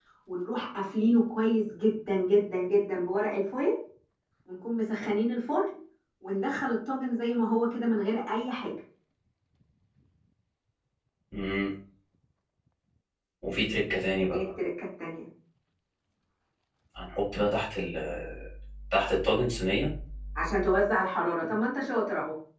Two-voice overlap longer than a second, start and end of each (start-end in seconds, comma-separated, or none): none